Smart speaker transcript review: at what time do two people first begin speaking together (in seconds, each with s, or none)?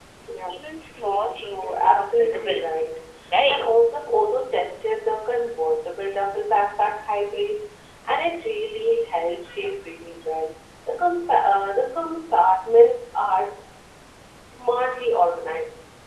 1.1 s